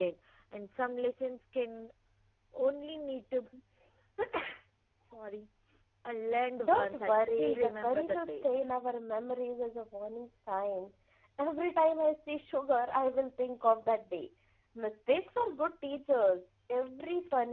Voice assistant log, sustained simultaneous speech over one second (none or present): present